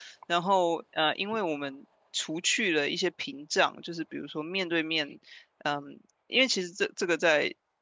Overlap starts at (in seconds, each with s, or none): none